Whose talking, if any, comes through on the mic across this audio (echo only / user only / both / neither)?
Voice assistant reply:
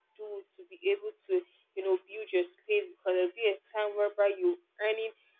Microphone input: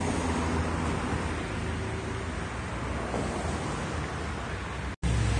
neither